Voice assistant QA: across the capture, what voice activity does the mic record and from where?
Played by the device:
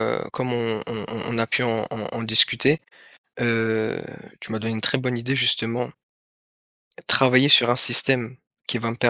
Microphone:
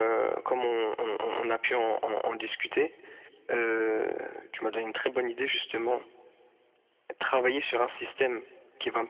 echo only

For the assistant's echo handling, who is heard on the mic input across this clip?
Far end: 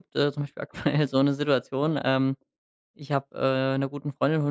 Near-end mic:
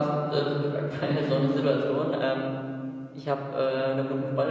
echo only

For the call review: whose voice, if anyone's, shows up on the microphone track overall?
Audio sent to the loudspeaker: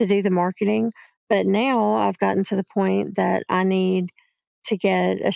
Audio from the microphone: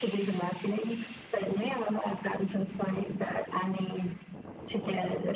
echo only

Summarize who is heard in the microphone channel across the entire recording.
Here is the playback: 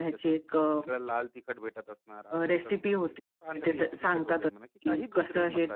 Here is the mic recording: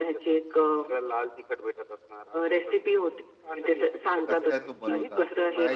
both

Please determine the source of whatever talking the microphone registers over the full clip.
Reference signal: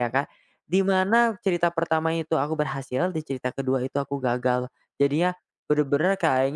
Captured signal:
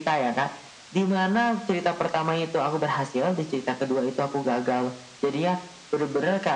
echo only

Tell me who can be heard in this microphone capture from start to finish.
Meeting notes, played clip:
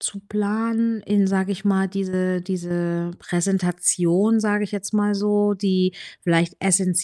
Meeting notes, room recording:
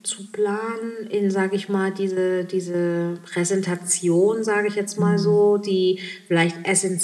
both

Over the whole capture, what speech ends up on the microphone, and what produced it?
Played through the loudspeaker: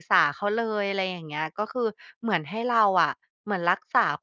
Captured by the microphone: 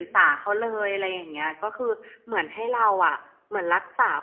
echo only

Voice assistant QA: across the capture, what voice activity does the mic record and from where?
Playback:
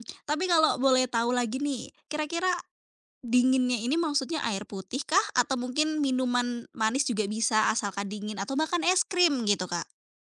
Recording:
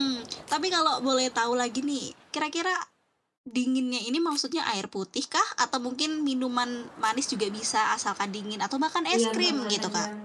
both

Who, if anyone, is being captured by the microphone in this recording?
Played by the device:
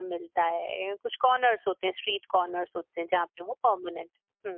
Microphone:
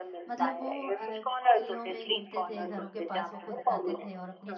both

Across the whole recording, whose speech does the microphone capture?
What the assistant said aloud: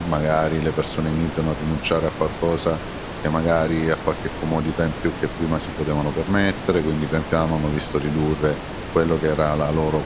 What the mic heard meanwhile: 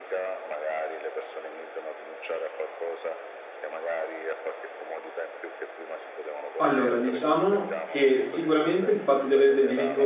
both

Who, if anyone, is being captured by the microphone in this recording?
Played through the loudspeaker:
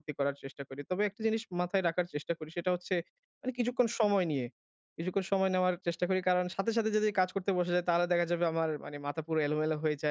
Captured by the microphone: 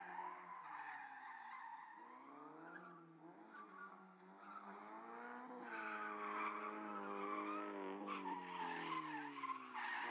neither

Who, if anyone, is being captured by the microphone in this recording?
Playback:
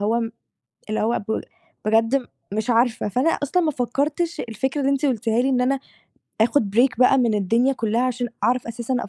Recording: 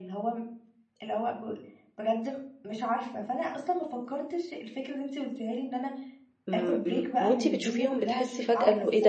both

